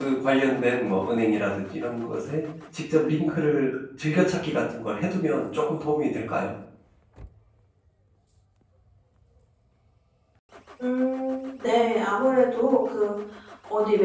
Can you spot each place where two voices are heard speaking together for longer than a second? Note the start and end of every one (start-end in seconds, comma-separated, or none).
none